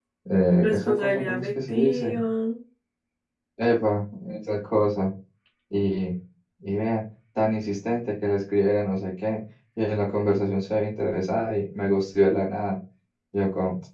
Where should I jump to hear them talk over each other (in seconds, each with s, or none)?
0.6 s